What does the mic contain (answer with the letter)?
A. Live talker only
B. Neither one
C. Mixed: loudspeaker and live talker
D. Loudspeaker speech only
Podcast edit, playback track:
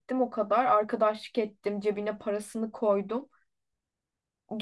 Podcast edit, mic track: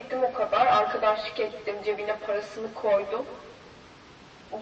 D